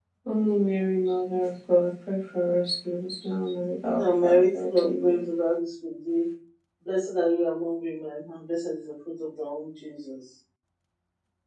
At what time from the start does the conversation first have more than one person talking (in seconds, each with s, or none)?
4.0 s